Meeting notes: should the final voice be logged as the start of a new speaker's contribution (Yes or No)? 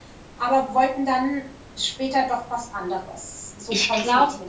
Yes